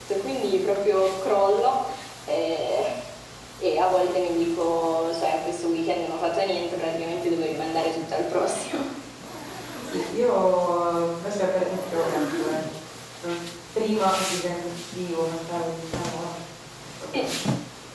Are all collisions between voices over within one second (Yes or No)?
Yes